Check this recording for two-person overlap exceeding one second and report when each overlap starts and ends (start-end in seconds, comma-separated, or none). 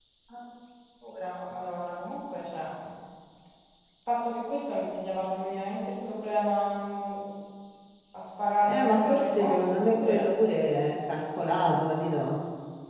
8.7-10.3